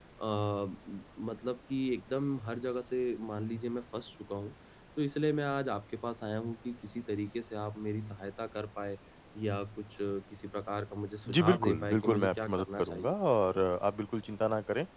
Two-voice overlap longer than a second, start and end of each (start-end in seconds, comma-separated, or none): 11.3-13.1